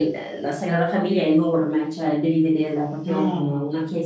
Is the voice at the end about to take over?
No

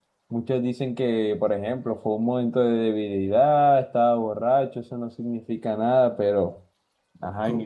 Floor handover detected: Yes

